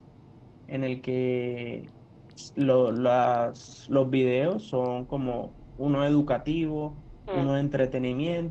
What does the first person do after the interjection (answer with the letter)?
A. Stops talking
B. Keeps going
B